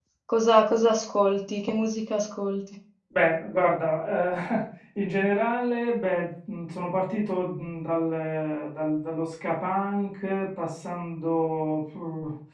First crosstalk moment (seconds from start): none

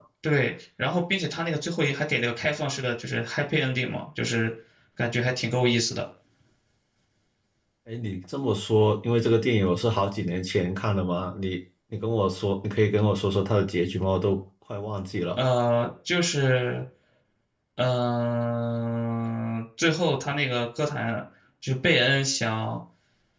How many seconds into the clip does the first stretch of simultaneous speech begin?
none

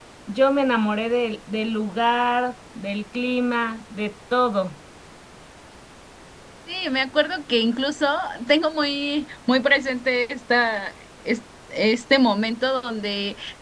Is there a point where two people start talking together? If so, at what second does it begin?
none

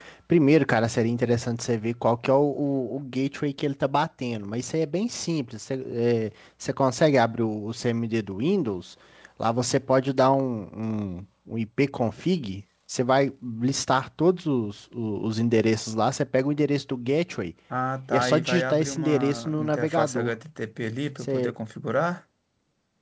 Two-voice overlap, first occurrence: 18 s

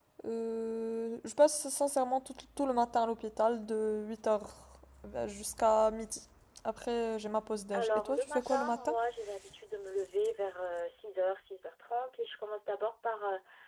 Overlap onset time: 8 s

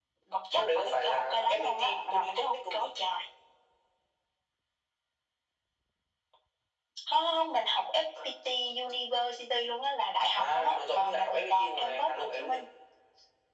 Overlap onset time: 1 s

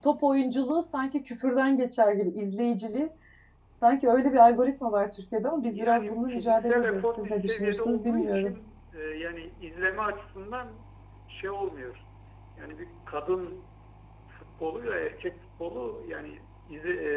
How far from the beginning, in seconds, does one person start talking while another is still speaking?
6 s

